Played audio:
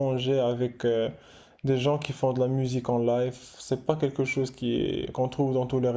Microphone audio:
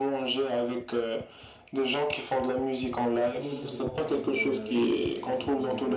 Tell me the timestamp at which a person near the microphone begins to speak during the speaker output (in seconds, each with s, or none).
3.3 s